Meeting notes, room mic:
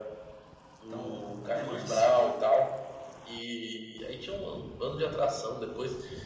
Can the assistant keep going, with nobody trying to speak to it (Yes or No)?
No